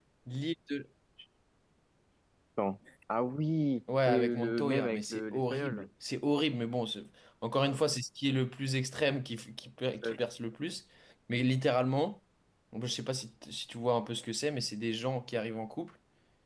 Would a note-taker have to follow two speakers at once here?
Yes, from 4.1 s

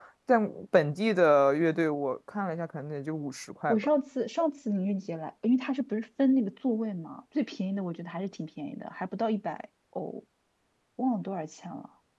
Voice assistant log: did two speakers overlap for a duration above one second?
No

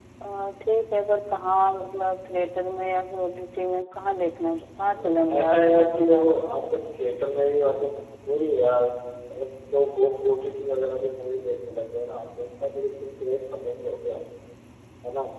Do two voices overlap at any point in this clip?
Yes, from 4.9 s

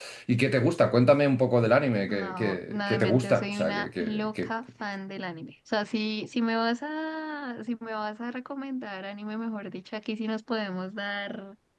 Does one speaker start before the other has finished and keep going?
Yes, from 2.1 s

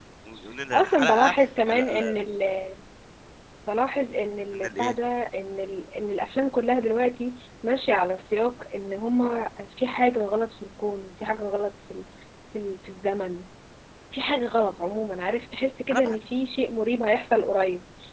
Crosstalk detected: Yes, from 0.7 s

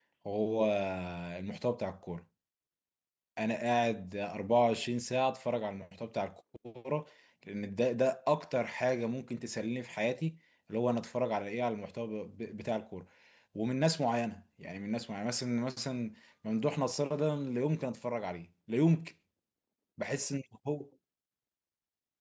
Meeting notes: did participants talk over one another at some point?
No

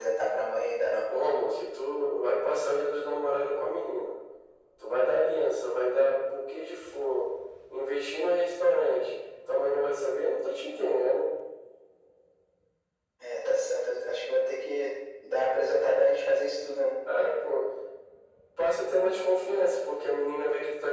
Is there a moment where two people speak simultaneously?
No

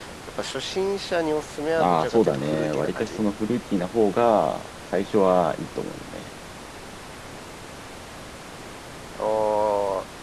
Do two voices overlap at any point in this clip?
Yes, from 1.8 s

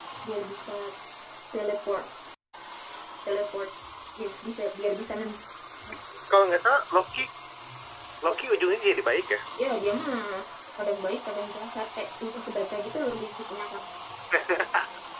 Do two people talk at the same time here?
No

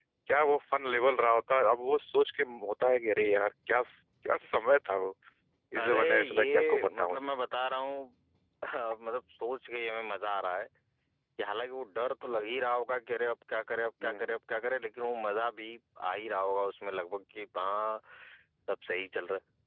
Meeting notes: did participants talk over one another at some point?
Yes, from 5.8 s

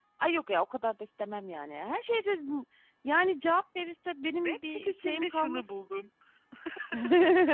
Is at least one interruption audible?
Yes, from 4.4 s

